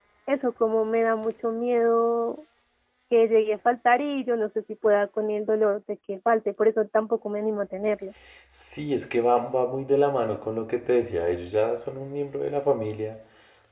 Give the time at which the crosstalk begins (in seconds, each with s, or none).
none